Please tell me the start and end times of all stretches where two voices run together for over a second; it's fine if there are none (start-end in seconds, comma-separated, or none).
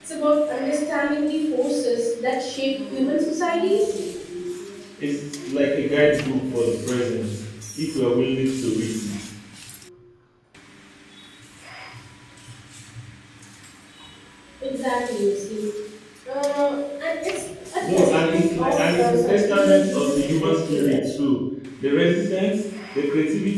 17.9-21.0